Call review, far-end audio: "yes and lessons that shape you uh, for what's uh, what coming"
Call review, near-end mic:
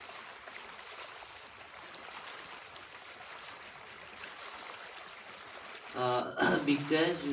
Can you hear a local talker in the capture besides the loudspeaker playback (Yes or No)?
Yes